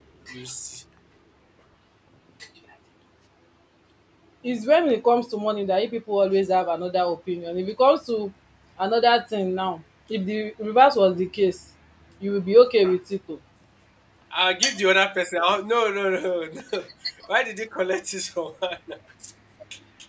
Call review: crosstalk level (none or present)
none